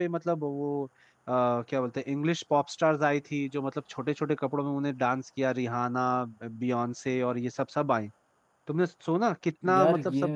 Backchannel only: Yes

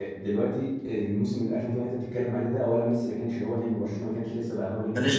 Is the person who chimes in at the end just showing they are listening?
Yes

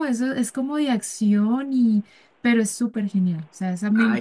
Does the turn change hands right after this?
Yes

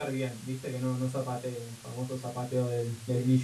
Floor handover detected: No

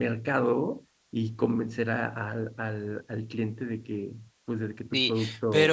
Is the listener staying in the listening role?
No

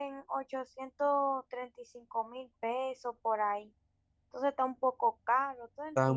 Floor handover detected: Yes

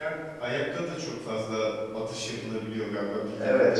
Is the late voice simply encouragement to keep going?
No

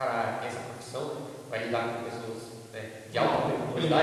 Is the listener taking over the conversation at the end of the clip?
Yes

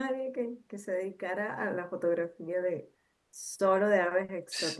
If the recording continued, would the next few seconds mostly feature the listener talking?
Yes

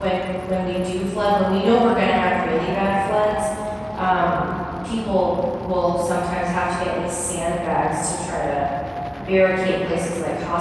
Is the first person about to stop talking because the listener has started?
No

